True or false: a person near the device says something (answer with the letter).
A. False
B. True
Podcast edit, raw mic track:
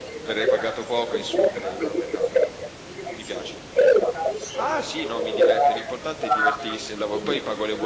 B